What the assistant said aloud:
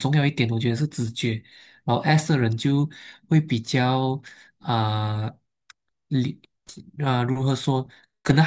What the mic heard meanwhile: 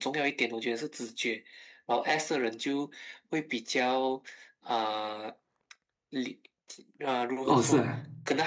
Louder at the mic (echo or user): user